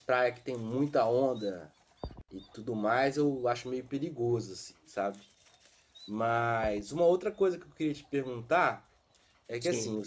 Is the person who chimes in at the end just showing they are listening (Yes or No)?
Yes